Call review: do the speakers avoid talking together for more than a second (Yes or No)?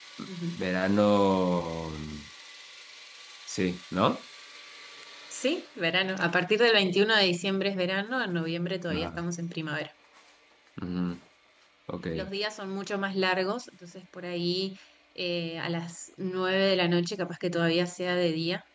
Yes